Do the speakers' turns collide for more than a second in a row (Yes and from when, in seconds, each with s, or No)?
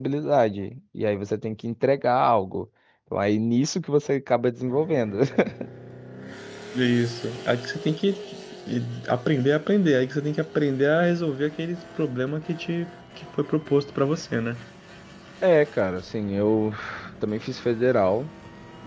No